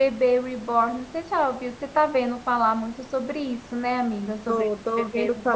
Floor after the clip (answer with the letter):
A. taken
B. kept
A